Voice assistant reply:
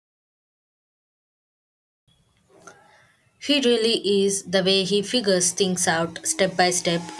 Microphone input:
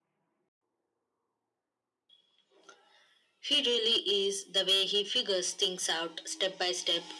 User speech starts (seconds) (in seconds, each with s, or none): none